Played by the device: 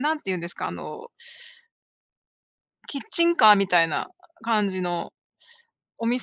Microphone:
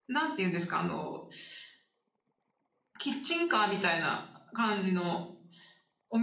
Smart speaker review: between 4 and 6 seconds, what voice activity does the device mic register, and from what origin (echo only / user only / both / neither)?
echo only